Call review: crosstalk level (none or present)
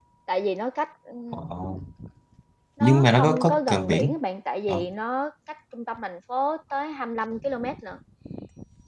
present